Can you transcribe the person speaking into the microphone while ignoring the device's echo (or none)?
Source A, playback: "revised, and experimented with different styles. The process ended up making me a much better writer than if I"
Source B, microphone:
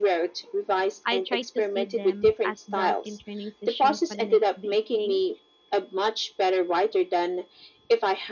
I try to see them as built in training sessions for the next big thing.